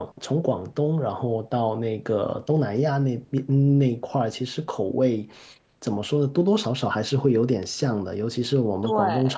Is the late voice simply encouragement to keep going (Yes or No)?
Yes